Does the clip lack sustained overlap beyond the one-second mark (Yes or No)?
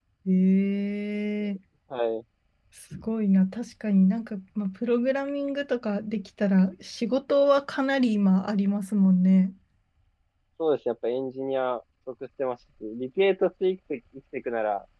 Yes